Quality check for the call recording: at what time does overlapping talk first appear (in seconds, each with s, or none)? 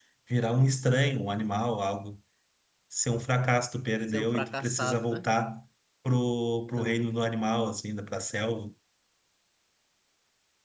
4.1 s